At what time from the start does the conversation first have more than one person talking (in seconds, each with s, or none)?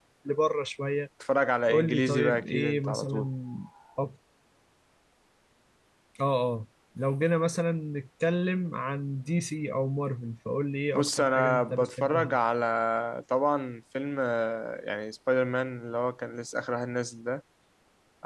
1.7 s